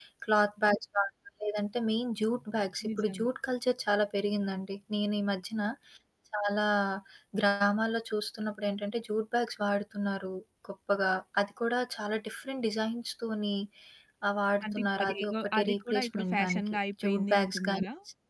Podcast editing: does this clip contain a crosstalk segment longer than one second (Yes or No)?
Yes